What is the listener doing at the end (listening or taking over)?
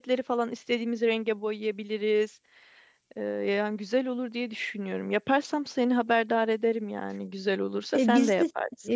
taking over